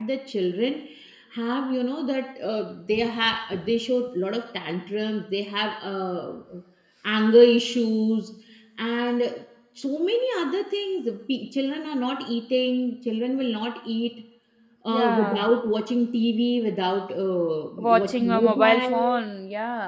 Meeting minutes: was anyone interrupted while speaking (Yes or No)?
Yes